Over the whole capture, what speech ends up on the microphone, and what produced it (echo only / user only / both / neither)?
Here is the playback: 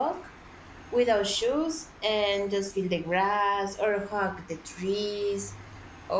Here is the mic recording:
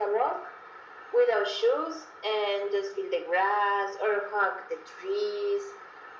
echo only